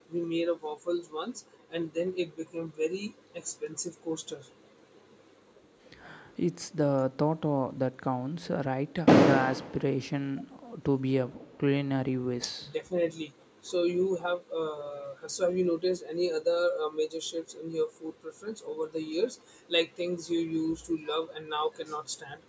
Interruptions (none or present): none